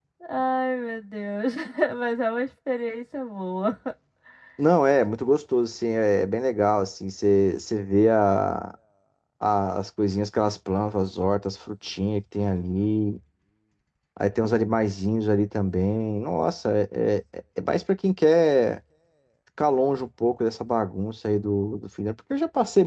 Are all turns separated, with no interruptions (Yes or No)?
Yes